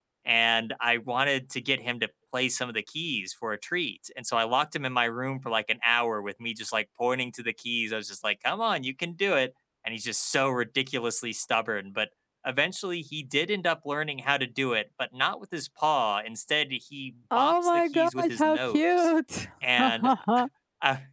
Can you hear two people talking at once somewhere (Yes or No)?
Yes